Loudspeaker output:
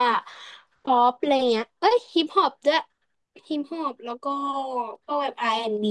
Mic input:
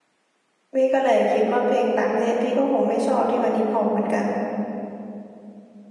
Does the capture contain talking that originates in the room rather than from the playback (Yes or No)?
Yes